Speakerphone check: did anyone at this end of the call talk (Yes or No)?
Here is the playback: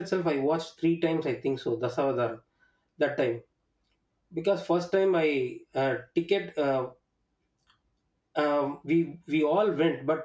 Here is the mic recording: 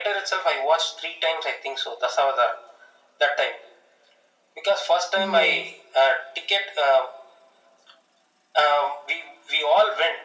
Yes